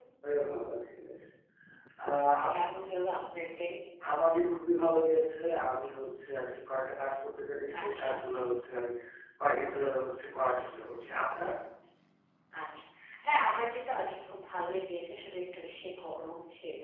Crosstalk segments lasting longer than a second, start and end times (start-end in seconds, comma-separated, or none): none